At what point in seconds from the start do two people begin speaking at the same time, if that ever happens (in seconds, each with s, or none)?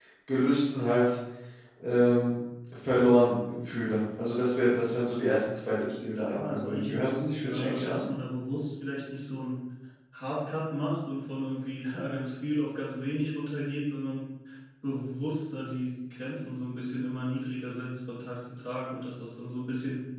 6.3 s